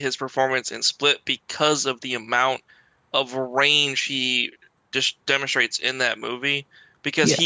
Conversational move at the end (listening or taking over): listening